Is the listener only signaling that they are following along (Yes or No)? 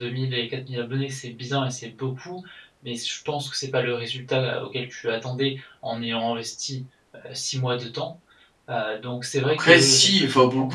No